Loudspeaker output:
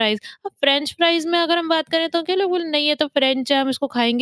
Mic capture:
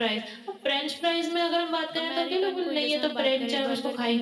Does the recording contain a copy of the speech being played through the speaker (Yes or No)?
Yes